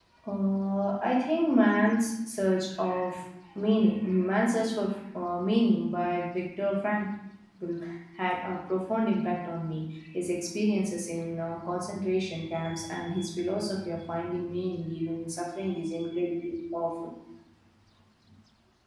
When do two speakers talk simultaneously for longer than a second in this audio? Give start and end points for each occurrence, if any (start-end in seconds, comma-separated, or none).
none